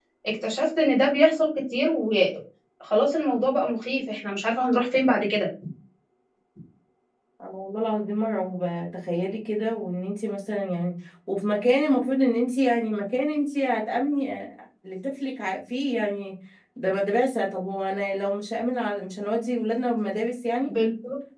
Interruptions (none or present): none